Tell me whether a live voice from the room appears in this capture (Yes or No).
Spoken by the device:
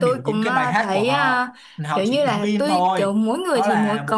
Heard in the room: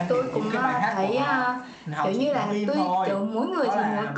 No